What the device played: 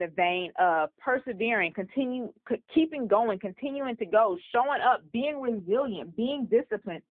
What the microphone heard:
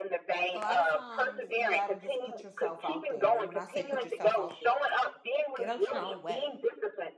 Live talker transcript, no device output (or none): a lot of times you got to just put yourself out there. And when I say put yourself out there, get out your own way.